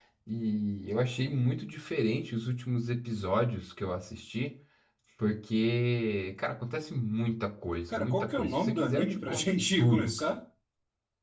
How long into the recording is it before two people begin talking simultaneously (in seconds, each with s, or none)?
7.9 s